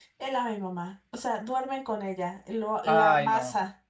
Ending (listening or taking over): listening